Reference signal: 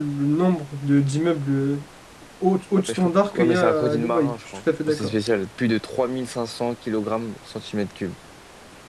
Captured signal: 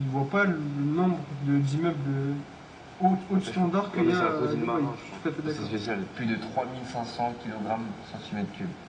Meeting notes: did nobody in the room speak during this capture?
Yes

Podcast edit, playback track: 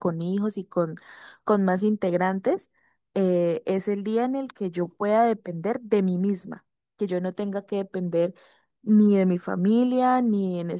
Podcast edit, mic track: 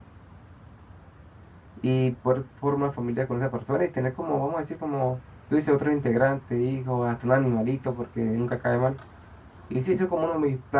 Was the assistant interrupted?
Yes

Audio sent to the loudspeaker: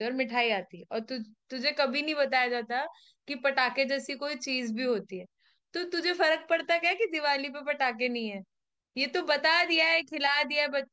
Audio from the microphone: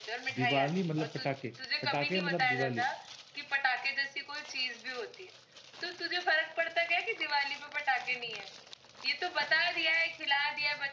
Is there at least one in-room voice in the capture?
Yes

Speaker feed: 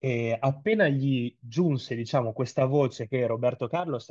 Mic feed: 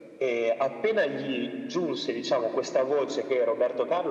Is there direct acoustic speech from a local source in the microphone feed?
No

